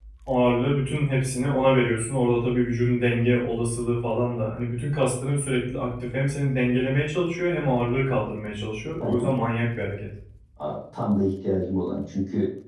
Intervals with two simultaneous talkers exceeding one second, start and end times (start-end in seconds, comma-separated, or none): none